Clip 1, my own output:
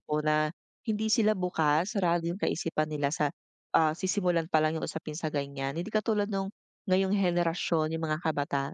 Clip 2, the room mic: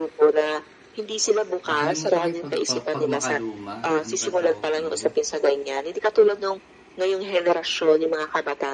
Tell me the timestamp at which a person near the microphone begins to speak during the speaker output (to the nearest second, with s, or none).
2 s